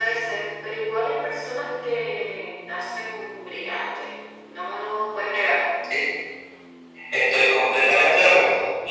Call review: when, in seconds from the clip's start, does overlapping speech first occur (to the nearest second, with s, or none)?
none